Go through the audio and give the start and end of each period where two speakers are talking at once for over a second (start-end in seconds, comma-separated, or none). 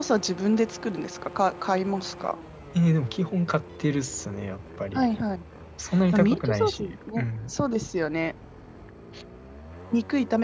6.1-7.5